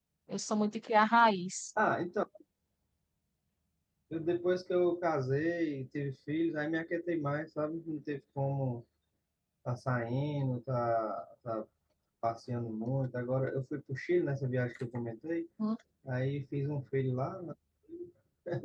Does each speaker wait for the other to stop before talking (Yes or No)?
Yes